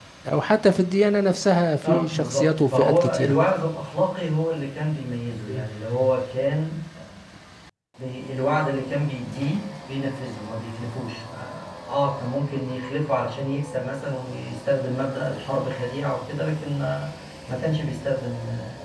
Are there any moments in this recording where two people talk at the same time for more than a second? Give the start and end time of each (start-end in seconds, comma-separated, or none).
1.8-3.4